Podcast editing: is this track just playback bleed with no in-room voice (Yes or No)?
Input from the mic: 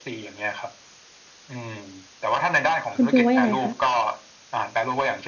No